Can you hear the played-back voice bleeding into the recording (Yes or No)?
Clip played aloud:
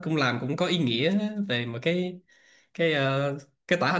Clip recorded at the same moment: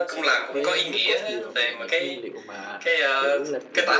Yes